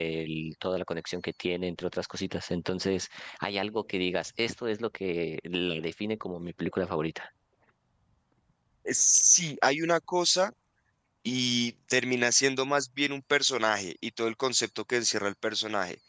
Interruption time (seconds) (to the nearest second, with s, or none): none